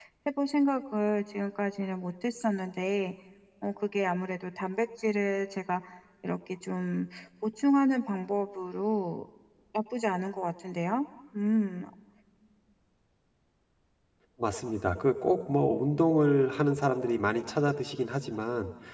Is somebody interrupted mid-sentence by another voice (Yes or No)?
No